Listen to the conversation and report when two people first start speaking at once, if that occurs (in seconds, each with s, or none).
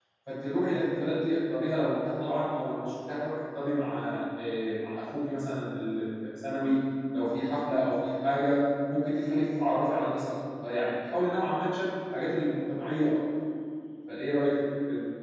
none